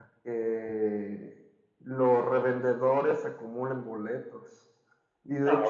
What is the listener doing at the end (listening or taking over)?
listening